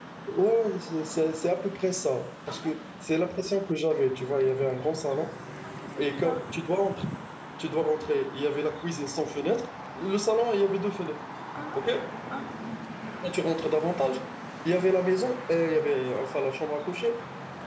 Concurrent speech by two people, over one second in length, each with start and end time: none

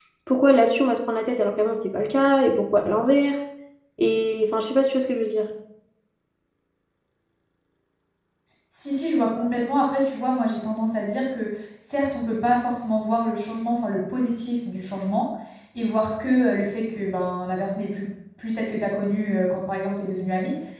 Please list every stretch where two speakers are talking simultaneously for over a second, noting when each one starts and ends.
none

